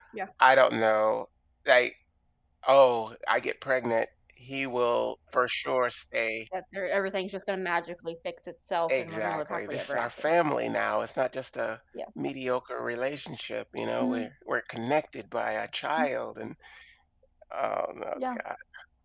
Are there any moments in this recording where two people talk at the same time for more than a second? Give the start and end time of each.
8.9-10.2

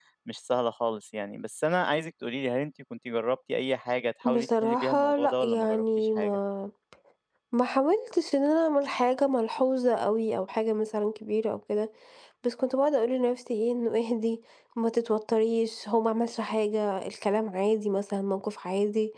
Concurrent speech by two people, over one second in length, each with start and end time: 4.2-6.4

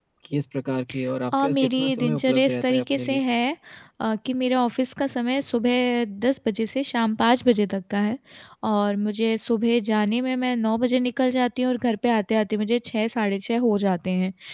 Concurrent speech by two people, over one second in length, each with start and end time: 1.3-3.2

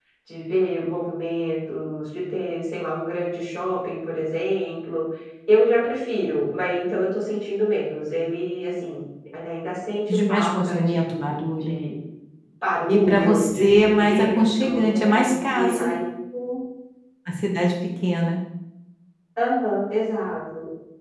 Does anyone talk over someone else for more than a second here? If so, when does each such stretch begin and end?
10.1-11.8, 12.9-16.0

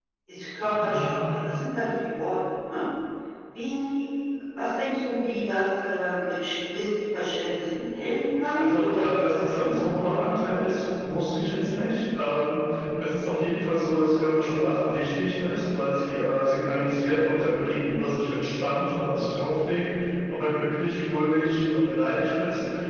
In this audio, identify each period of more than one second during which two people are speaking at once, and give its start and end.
8.5-9.8

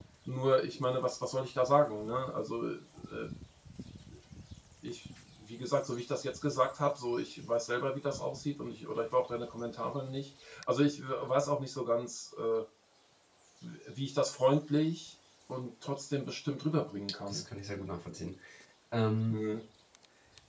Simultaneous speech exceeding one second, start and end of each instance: none

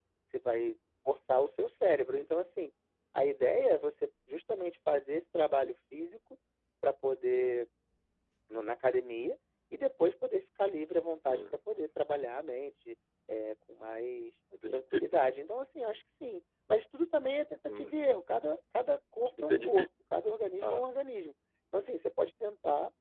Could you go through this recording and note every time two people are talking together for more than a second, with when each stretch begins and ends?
none

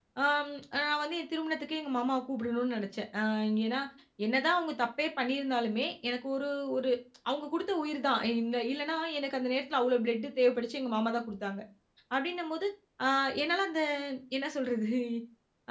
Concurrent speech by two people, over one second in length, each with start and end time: none

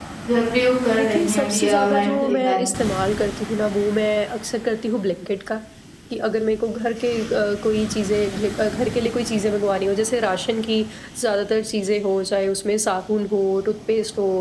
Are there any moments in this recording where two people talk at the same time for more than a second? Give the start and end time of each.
1.0-2.9

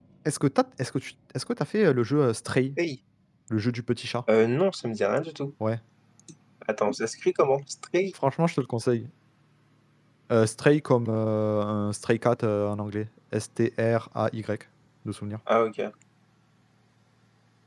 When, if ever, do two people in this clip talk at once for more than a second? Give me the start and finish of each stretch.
none

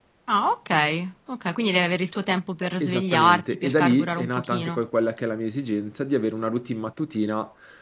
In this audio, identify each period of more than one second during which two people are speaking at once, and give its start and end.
2.8-4.8

